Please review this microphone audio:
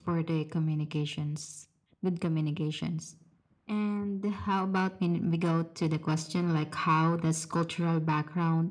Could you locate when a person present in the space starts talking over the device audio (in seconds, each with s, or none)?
none